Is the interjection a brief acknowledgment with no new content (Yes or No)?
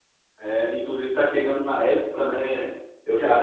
Yes